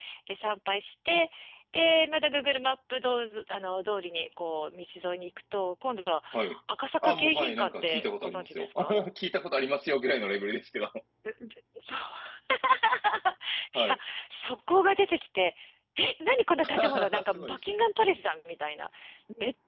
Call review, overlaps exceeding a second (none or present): present